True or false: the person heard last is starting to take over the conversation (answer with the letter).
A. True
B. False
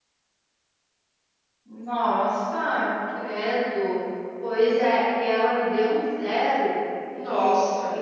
B